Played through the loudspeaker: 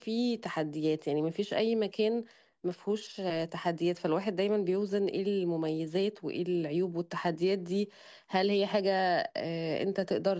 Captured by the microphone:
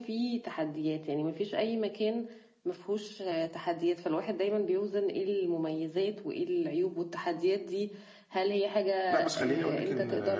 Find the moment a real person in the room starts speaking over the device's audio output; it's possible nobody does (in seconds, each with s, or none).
9.1 s